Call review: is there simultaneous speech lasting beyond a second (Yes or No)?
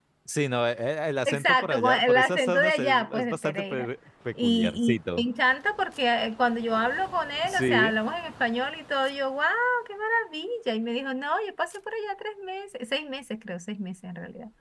Yes